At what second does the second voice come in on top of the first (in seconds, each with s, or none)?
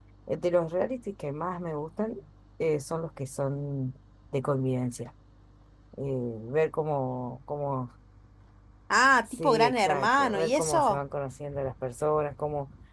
9.3 s